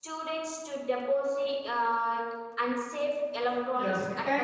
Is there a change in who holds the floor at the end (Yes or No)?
Yes